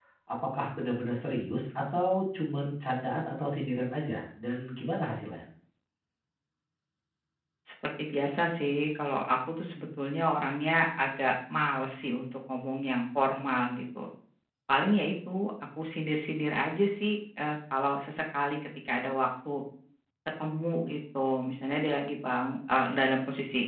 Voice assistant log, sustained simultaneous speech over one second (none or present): none